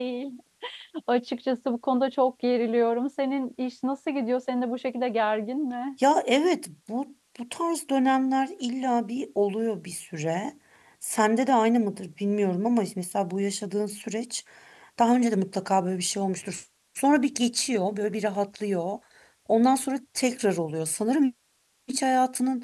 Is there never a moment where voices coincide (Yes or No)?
Yes